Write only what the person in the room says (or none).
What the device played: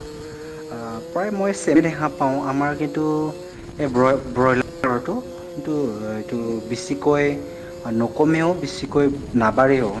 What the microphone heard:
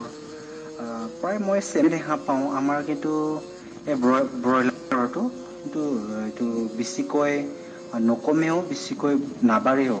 none